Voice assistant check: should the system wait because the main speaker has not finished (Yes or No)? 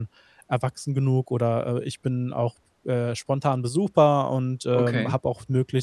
Yes